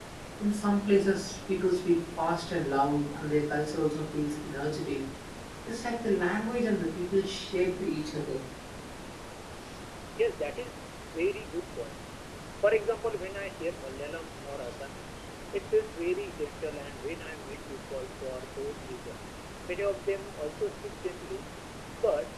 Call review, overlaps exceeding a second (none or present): none